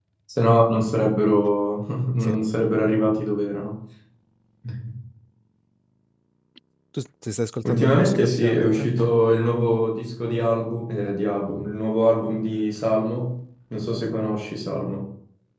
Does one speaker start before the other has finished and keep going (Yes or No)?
Yes